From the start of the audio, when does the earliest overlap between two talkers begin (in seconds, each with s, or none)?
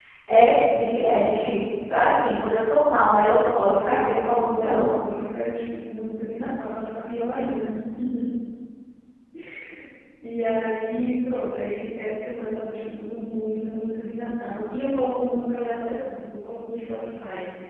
3.6 s